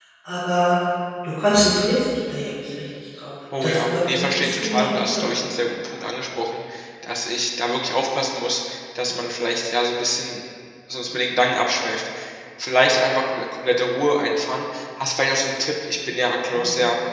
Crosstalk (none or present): present